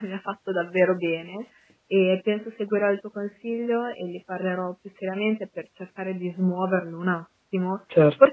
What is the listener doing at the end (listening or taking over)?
listening